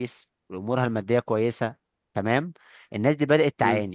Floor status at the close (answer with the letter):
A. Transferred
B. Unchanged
B